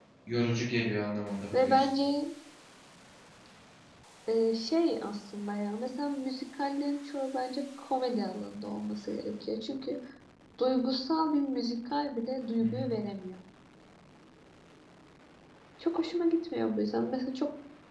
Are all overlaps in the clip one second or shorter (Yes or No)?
Yes